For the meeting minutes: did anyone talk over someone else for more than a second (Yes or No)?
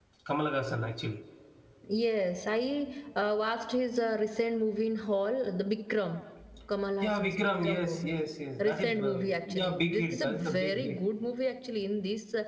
Yes